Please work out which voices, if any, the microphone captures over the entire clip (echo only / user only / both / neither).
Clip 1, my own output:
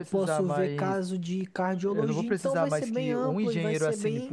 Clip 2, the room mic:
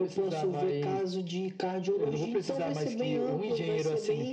echo only